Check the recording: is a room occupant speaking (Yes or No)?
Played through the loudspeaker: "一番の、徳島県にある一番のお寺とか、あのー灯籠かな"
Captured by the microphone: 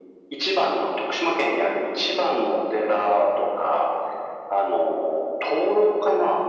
No